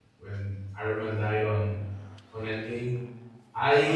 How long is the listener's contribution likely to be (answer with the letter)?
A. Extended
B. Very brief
B